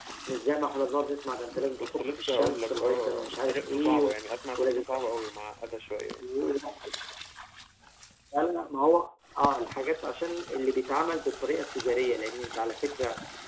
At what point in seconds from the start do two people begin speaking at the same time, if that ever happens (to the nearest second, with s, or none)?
2 s